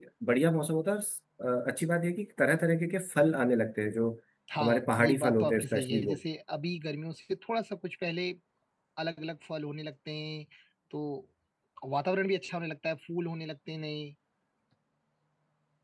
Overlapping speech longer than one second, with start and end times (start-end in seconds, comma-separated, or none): 4.6-6.2